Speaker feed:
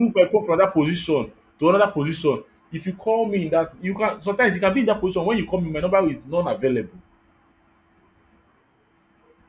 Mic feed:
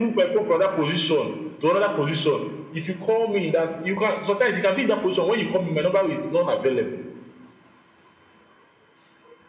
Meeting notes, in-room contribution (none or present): none